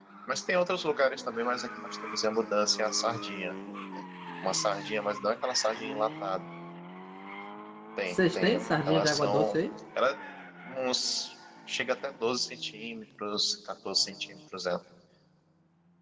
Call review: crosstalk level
present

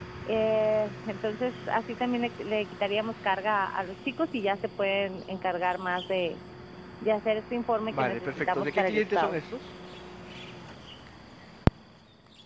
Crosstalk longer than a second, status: present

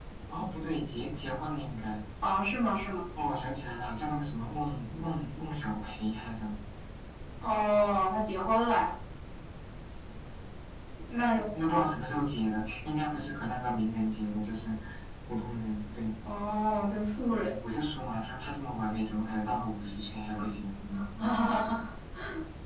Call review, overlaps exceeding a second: none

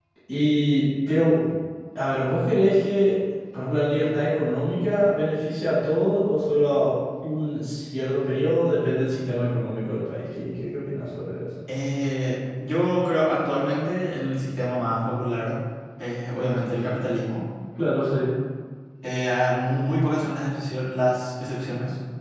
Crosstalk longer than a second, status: none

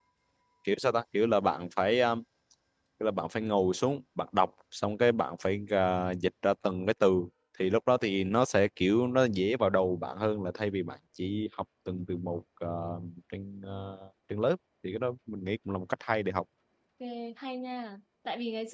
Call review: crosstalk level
none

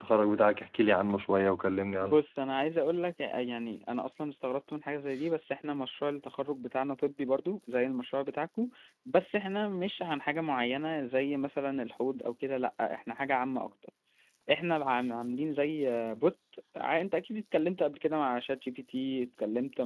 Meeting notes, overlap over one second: none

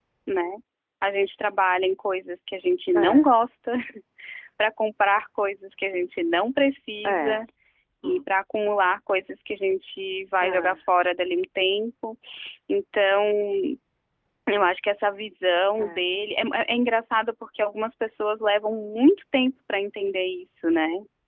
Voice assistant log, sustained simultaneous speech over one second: none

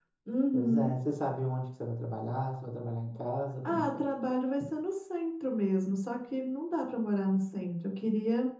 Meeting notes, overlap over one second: none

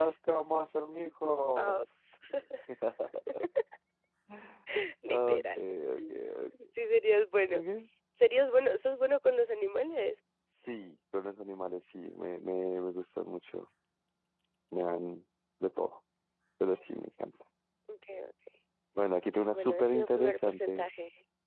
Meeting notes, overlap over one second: present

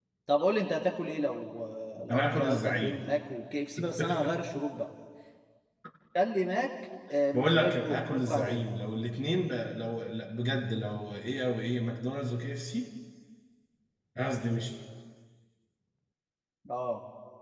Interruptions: present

